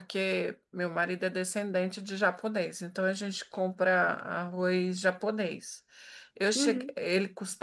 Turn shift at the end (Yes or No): No